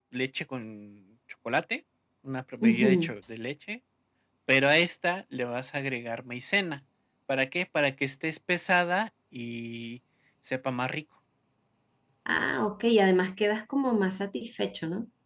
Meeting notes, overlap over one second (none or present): none